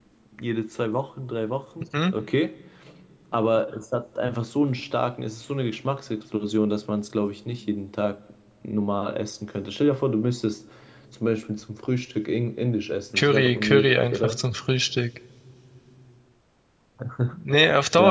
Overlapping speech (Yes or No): Yes